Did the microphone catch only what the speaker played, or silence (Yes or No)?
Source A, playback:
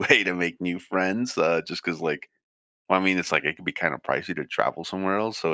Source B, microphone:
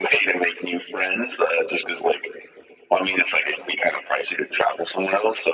Yes